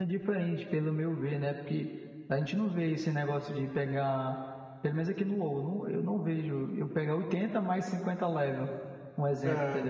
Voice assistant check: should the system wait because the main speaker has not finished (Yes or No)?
No